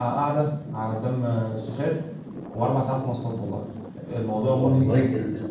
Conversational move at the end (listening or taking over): taking over